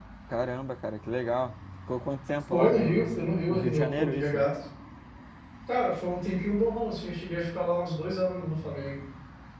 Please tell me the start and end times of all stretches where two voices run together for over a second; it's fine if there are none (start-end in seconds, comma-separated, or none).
2.5-4.5